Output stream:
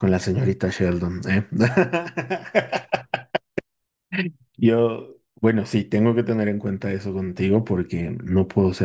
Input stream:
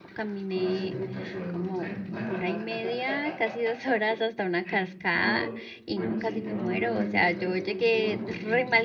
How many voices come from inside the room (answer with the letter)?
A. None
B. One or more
B